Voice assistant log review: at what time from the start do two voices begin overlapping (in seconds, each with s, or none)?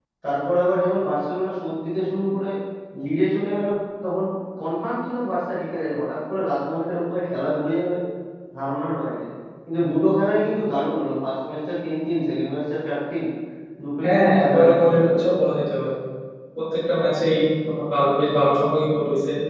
14.0 s